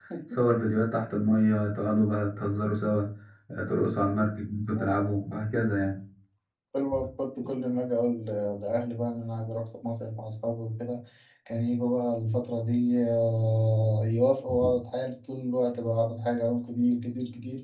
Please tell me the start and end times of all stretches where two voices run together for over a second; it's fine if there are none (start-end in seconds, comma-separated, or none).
none